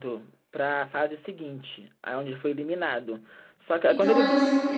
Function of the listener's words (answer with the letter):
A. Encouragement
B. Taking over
B